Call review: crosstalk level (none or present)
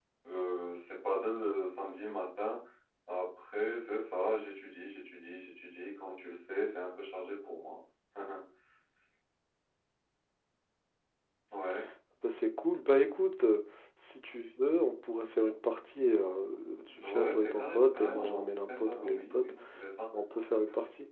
present